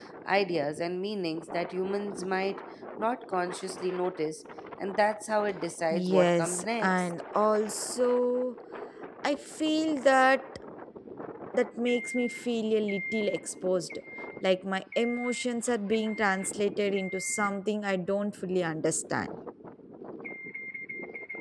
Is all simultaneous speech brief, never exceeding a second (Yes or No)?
No